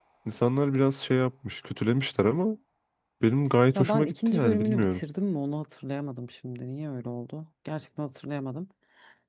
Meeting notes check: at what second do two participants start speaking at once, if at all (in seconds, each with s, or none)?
3.8 s